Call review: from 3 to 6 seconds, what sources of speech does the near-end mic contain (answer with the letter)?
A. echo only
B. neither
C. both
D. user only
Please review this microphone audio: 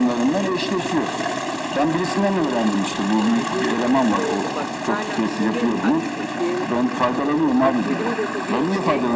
C